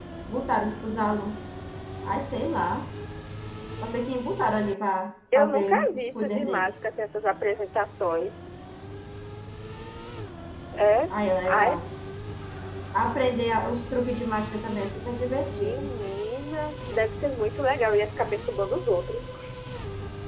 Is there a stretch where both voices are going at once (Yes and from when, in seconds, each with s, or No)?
Yes, from 5.3 s